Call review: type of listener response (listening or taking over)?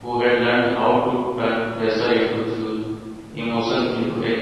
listening